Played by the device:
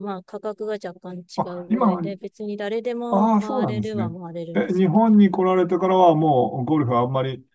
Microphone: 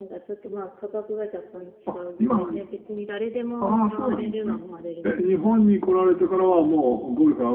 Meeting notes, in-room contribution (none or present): none